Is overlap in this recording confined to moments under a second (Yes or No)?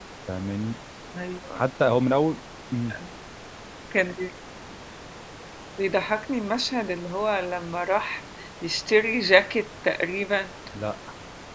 Yes